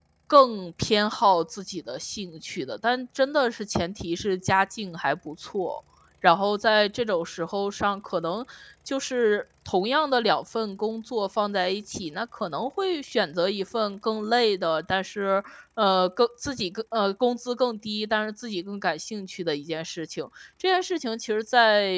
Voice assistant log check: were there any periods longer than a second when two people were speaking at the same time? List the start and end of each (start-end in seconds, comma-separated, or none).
none